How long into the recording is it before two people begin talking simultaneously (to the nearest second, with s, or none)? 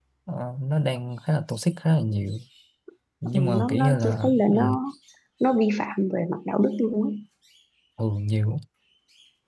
3 s